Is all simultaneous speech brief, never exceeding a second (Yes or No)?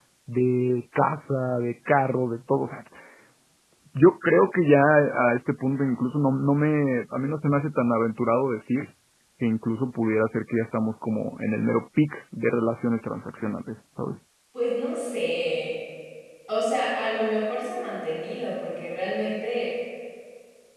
Yes